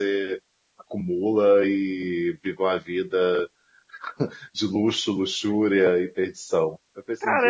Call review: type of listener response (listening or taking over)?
taking over